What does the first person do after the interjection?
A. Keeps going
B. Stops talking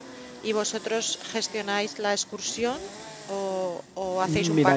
B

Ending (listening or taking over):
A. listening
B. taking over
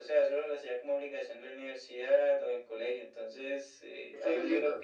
A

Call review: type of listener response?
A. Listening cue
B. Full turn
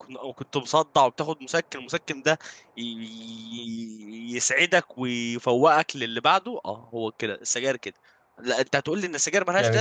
A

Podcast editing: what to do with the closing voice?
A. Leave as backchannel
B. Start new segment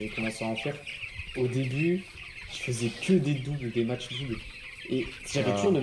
A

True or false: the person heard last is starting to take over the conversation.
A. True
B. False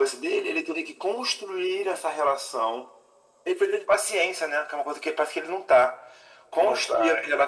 B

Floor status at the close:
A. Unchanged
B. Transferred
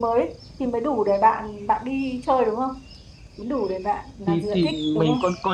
B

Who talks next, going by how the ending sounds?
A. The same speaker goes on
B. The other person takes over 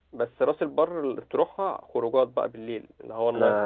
B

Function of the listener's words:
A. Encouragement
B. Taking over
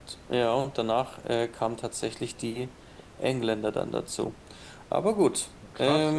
B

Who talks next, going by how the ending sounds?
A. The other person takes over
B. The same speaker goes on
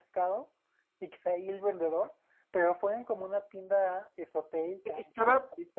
A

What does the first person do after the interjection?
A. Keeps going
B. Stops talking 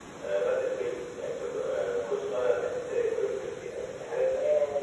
B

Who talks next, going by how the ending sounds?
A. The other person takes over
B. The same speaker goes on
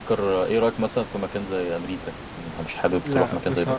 A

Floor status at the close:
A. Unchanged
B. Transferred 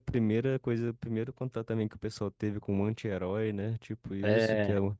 A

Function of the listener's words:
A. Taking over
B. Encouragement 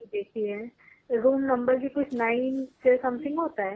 A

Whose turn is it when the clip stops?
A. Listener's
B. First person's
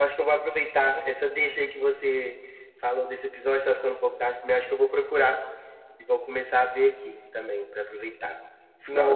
A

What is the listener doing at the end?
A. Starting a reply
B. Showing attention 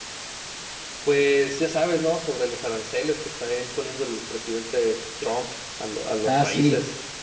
A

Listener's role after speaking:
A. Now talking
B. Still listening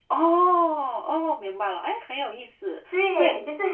A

